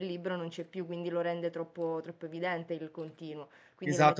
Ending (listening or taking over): taking over